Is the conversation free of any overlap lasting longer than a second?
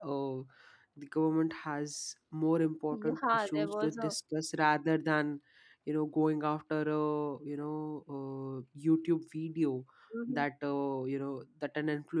No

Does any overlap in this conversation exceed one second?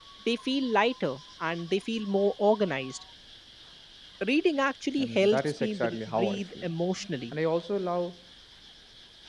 Yes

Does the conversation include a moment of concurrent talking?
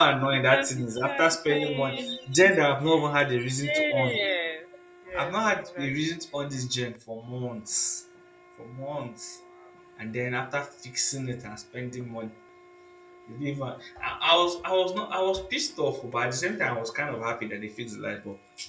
Yes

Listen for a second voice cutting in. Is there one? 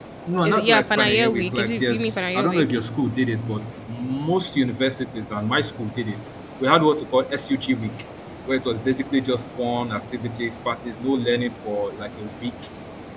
Yes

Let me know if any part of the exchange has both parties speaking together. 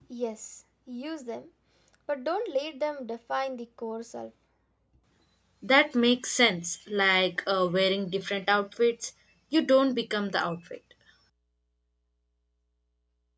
No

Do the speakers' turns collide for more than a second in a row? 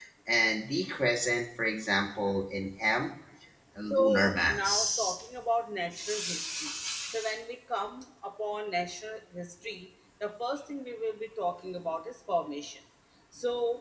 Yes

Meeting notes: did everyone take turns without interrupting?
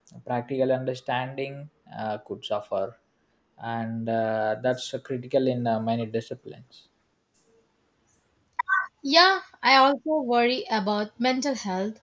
Yes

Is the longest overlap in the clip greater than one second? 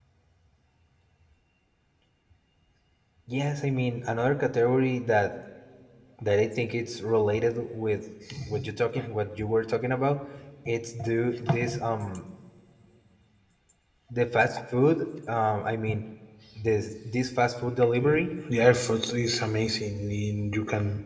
No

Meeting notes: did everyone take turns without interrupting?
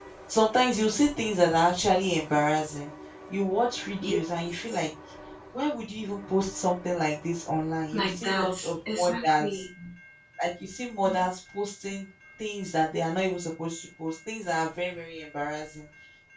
No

